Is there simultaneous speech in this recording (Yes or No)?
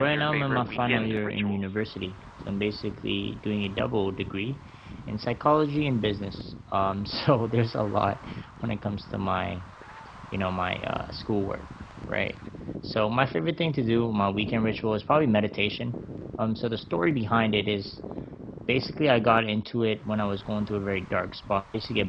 Yes